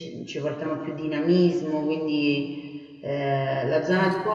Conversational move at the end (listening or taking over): listening